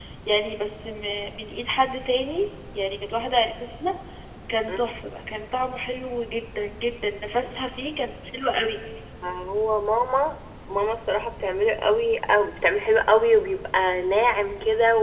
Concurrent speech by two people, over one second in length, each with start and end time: none

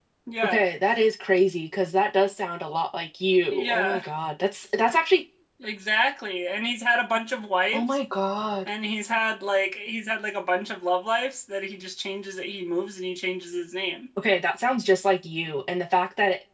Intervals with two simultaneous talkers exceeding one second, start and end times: none

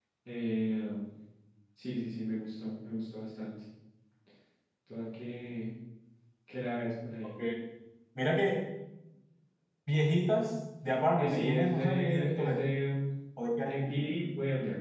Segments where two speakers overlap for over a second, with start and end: 11.2-12.6

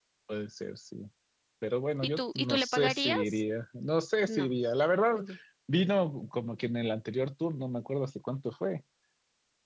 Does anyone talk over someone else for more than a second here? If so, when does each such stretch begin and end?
2.0-3.4

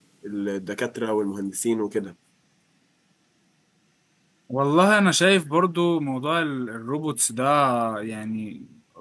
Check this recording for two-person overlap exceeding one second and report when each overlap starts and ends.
none

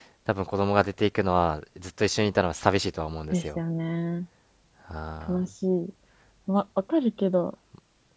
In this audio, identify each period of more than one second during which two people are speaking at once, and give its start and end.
none

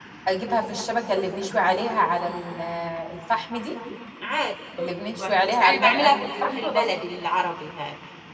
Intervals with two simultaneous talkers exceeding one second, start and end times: 4.8-6.8

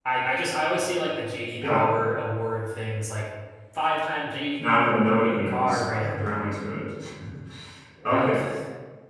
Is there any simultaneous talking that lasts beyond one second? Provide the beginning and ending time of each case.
4.6-6.3

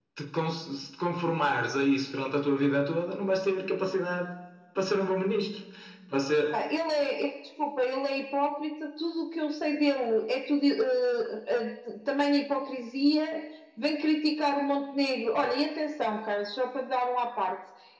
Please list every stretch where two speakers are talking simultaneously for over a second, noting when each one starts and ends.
none

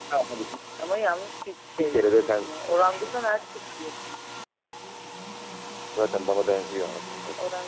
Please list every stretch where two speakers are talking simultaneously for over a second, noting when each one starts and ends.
1.8-3.1

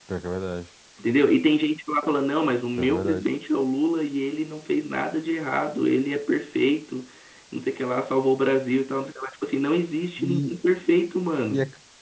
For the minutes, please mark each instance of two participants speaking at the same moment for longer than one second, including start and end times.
none

